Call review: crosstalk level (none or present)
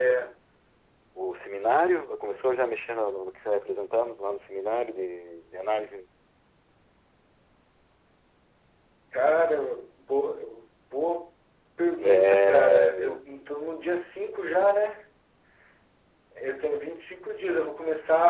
present